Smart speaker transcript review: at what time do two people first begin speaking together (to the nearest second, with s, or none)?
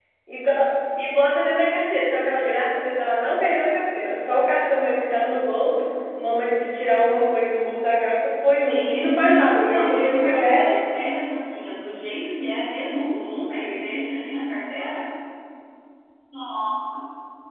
9 s